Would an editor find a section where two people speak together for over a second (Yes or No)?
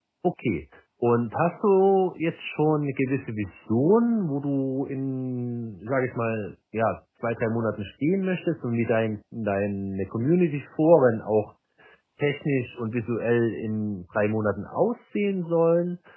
No